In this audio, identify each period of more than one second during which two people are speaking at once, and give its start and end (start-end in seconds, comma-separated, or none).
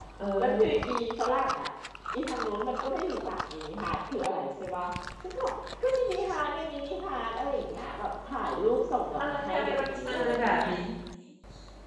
9.2-10.7